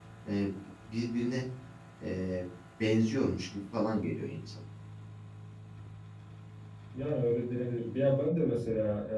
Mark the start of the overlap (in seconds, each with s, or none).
none